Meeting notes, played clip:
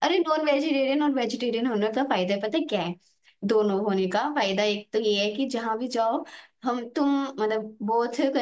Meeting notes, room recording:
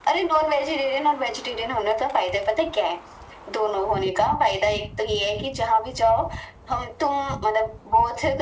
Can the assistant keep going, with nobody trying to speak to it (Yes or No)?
Yes